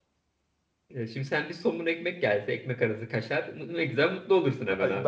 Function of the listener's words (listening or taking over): taking over